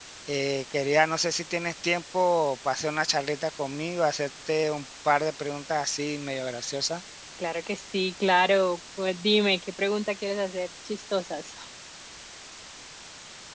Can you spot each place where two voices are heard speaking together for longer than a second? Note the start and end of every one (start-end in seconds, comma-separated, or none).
none